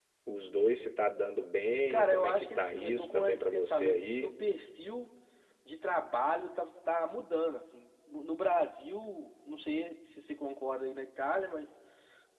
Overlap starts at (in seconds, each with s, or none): 1.9 s